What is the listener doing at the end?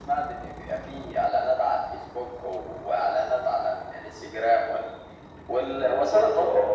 taking over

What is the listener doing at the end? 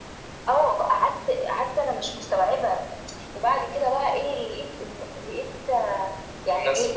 listening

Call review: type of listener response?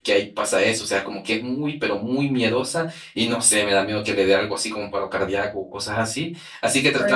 listening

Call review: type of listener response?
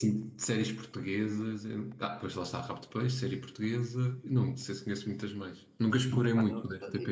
taking over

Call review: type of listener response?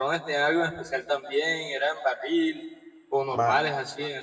taking over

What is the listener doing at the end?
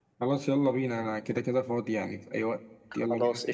taking over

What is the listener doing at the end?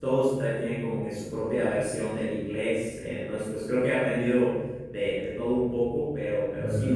listening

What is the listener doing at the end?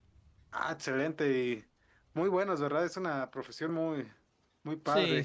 taking over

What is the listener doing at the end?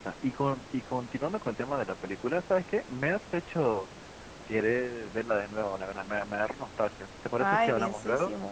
taking over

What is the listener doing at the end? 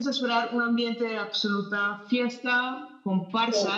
listening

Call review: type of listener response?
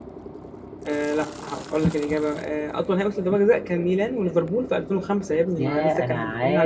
taking over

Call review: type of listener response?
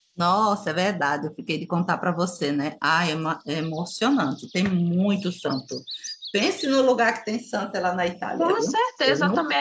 taking over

